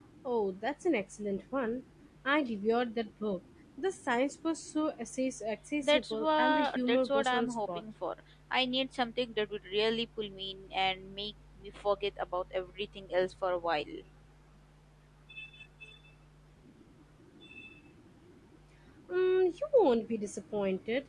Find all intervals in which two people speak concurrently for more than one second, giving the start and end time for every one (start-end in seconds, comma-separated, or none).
5.8-7.8